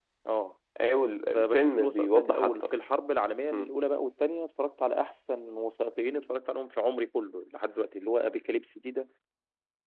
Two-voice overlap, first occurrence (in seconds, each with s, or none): 1.3 s